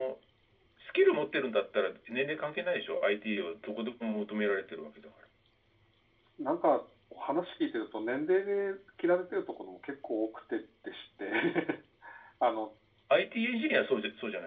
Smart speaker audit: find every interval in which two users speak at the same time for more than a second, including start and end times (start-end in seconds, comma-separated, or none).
none